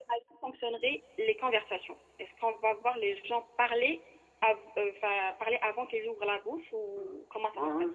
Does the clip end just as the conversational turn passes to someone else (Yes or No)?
Yes